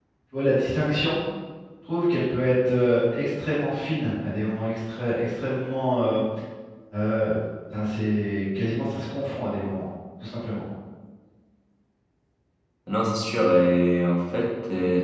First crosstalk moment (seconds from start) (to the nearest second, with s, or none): none